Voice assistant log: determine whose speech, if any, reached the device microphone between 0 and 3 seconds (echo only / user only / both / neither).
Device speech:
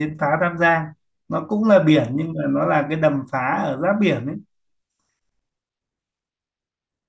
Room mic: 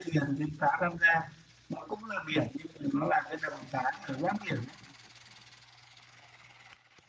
echo only